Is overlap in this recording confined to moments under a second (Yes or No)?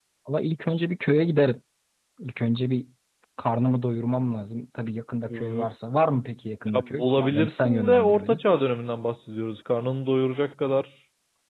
No